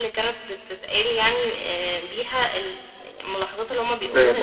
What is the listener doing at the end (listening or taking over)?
taking over